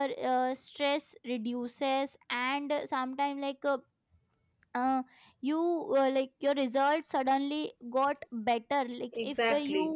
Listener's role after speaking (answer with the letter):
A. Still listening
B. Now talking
A